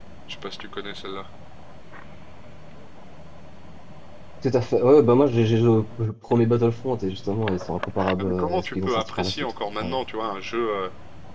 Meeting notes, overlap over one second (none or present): present